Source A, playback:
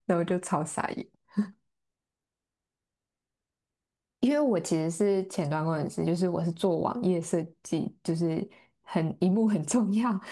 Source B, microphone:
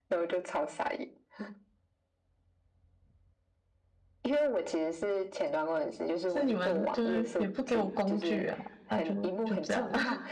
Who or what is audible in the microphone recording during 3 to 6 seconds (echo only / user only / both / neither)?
echo only